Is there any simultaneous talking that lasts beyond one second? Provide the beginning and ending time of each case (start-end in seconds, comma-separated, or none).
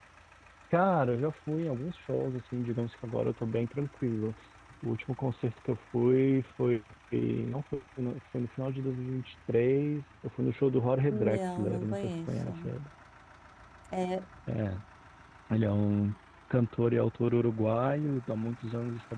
11.1-12.5